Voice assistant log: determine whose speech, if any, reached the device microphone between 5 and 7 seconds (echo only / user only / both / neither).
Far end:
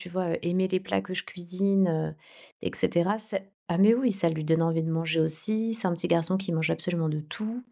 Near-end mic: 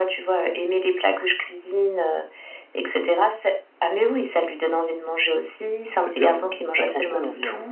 both